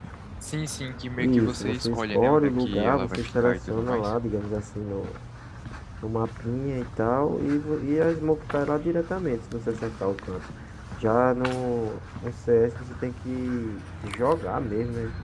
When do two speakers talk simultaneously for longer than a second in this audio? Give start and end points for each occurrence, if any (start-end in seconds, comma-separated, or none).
1.2-4.1